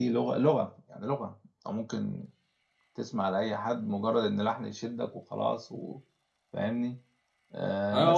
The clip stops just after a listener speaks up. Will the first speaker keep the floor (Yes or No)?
No